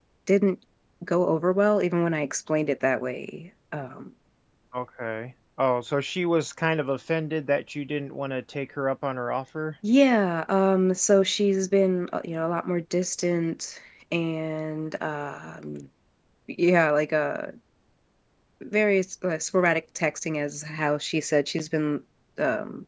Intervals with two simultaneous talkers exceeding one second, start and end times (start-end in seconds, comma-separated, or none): none